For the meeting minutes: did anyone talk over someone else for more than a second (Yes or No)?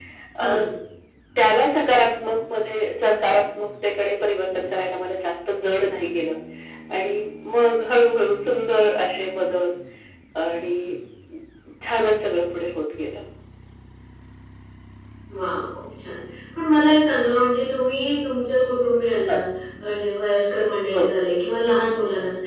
No